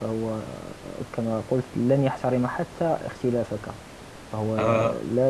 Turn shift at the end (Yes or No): No